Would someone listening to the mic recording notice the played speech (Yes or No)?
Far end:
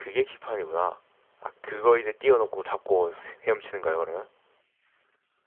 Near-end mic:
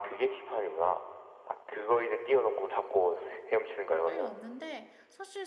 Yes